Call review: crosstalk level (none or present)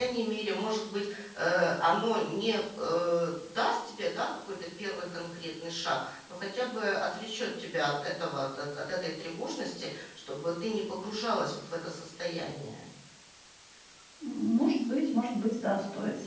none